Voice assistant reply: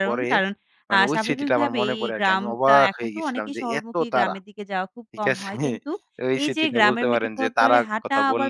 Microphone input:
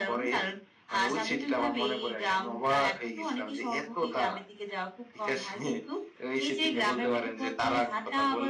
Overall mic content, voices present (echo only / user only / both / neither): echo only